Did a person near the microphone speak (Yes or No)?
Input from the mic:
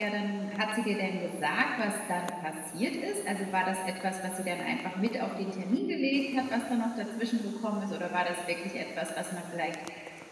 Yes